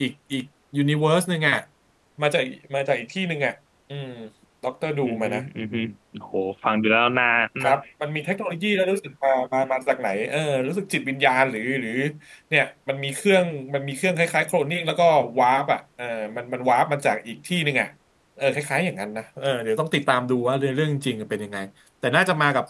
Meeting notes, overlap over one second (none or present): none